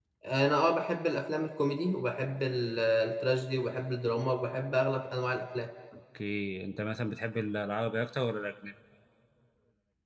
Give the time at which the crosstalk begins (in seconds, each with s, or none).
none